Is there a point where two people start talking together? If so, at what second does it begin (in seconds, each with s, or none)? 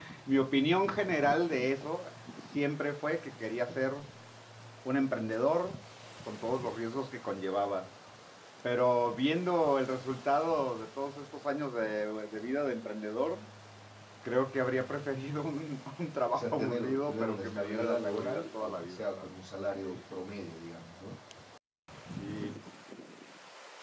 16.3 s